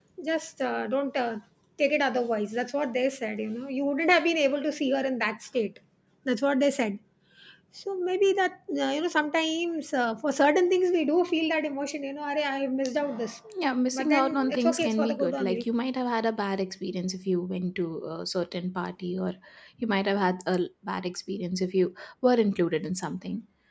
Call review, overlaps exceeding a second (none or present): present